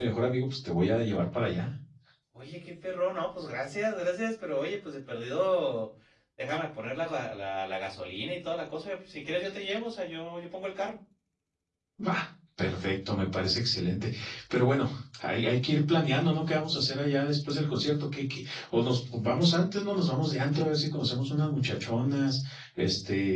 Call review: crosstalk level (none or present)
none